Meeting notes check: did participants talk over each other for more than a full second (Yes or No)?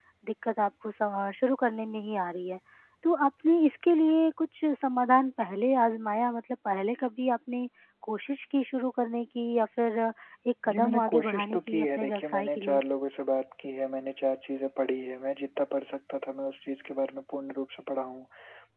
Yes